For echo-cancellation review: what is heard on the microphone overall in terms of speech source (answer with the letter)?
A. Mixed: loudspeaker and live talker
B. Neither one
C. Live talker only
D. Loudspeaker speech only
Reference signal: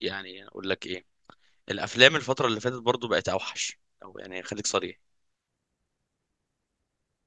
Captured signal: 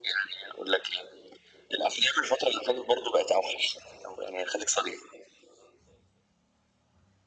D